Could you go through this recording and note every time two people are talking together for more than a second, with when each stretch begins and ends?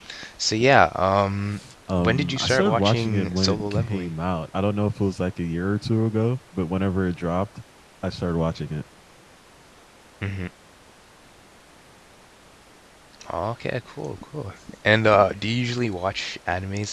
2.0-4.1

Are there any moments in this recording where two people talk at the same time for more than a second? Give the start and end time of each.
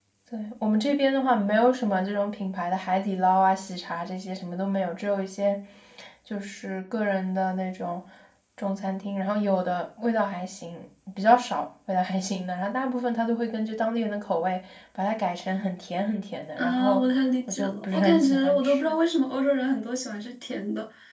17.5-18.9

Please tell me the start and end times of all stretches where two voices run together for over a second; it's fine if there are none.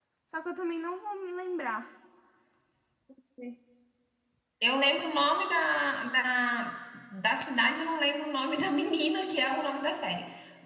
none

